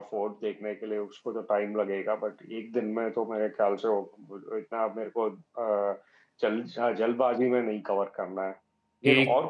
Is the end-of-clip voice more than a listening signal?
No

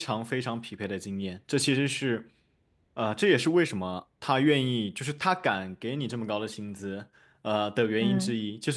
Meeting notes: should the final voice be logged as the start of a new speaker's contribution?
No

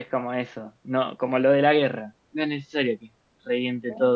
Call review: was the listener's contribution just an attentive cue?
Yes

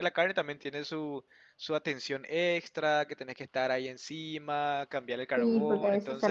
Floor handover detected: Yes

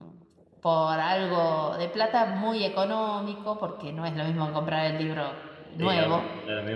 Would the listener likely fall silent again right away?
No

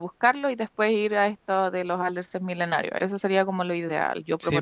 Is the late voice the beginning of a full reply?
Yes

